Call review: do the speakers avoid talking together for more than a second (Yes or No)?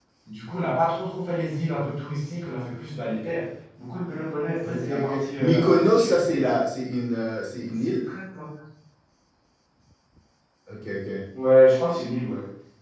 No